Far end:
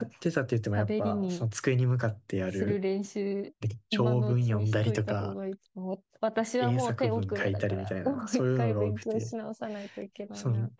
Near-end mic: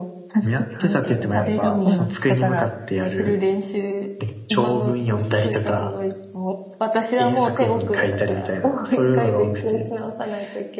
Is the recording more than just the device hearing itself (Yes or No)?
Yes